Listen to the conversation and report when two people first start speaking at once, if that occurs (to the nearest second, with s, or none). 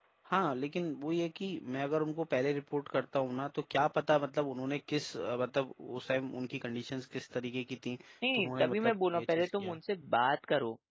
8 s